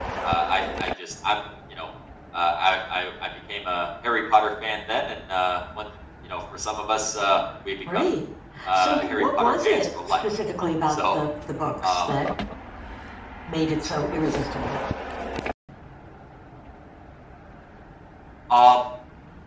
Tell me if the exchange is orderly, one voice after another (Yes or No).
No